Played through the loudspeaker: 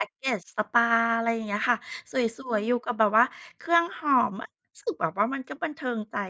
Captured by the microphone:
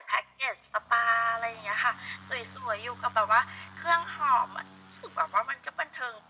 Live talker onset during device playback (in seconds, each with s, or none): none